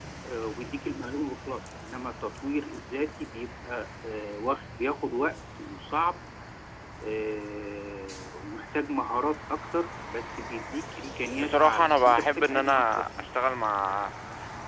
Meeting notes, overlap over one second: present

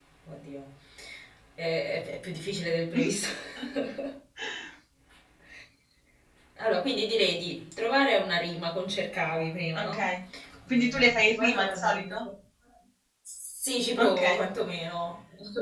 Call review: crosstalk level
present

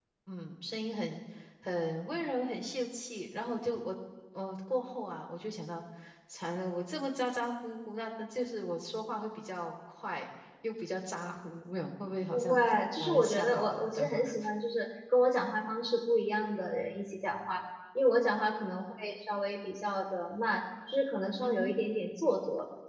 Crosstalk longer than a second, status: present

